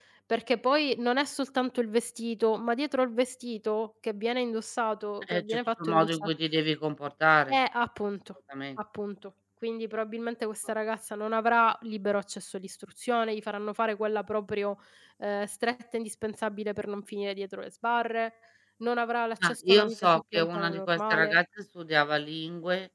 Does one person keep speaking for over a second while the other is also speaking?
Yes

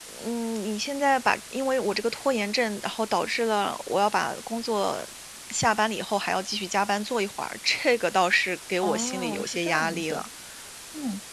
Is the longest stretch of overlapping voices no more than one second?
No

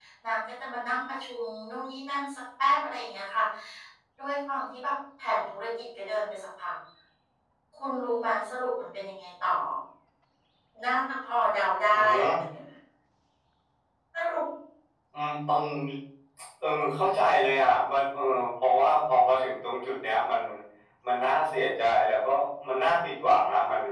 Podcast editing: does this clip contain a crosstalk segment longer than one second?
No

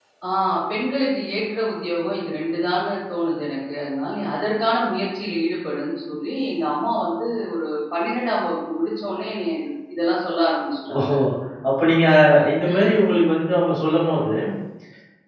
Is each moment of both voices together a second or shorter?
Yes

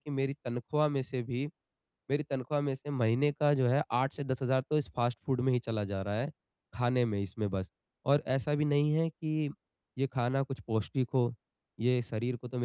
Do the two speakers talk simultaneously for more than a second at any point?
No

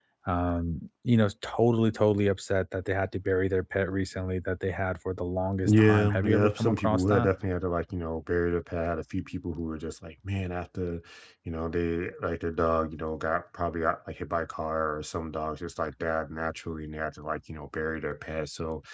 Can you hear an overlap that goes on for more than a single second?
Yes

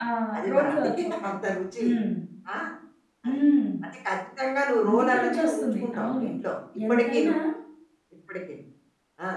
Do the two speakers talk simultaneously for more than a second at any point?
Yes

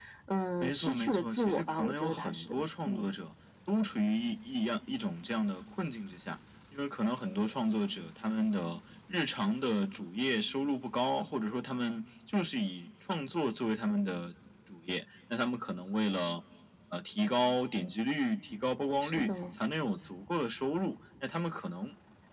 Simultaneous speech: Yes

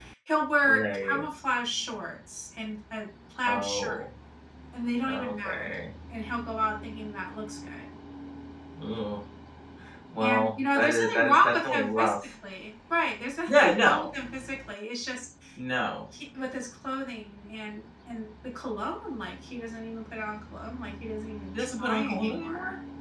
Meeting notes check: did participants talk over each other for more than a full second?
Yes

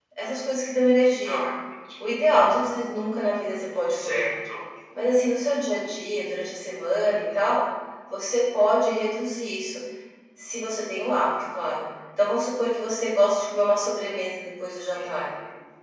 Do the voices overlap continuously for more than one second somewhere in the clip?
No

